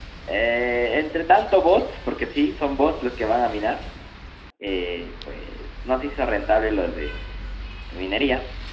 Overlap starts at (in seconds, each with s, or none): none